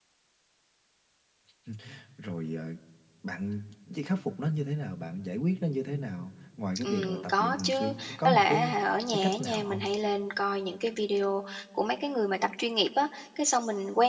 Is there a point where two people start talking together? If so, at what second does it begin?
7 s

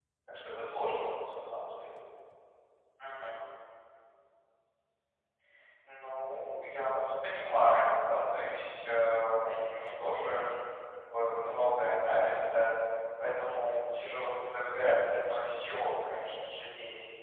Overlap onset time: none

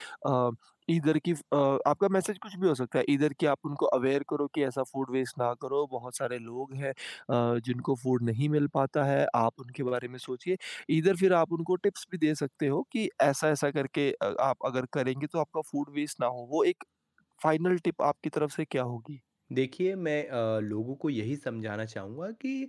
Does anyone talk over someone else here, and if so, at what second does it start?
none

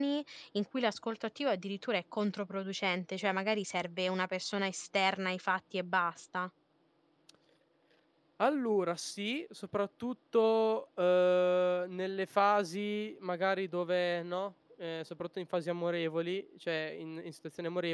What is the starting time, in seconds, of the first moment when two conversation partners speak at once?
none

